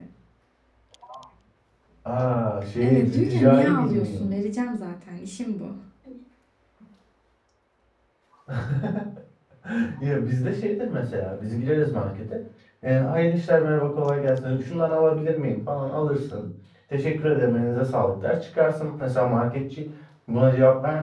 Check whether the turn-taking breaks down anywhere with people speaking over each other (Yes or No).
Yes